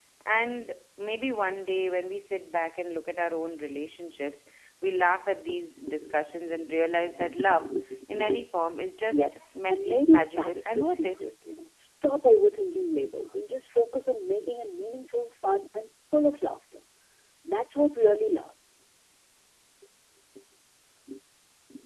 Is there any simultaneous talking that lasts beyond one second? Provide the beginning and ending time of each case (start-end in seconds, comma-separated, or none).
9.1-11.2